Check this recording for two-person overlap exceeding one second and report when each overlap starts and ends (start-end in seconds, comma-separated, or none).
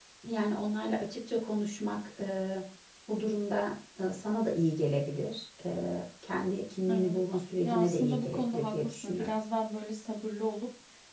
7.6-9.3